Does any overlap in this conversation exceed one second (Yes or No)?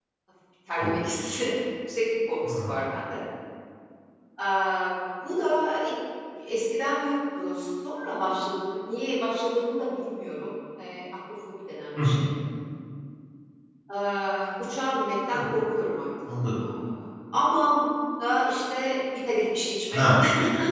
No